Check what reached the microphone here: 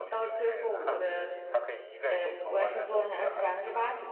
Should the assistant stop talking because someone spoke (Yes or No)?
Yes